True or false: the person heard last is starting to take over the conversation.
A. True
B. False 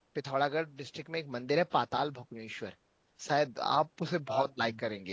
B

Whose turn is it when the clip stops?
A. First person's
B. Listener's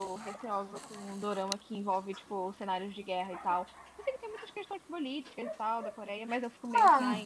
B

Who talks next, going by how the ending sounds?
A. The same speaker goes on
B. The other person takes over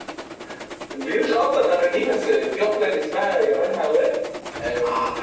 B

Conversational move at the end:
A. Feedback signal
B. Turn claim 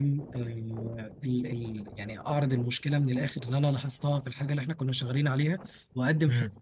A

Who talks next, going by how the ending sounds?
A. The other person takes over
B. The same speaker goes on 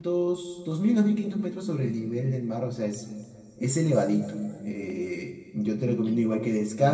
B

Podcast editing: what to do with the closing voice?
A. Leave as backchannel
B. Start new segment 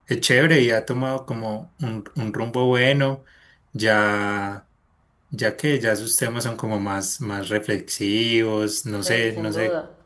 B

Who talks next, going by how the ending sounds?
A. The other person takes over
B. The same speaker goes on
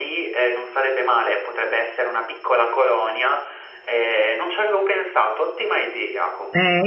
A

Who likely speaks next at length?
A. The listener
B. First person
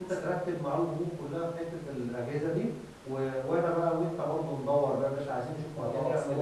A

